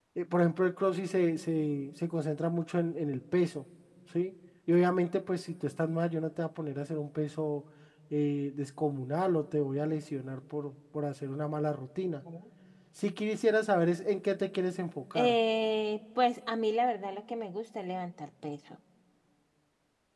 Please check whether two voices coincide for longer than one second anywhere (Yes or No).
No